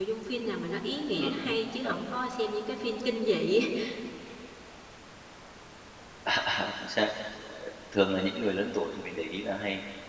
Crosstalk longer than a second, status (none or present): none